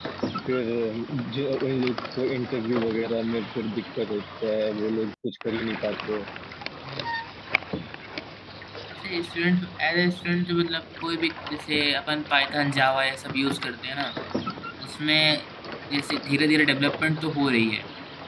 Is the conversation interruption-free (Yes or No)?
Yes